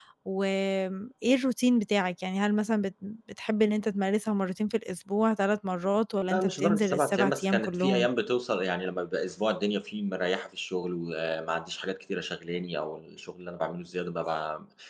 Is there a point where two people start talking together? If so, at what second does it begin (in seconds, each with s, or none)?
6.3 s